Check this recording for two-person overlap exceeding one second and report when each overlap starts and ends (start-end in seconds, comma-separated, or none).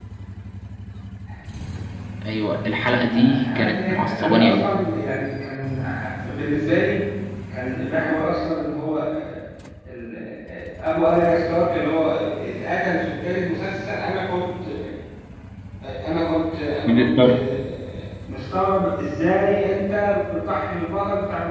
3.1-4.7